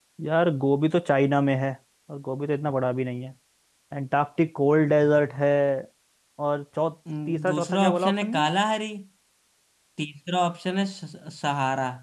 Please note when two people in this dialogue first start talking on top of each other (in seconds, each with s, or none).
7.3 s